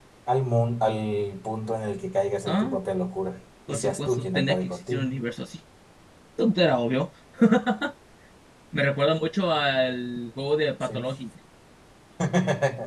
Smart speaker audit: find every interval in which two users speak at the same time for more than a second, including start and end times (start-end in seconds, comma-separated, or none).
3.7-5.1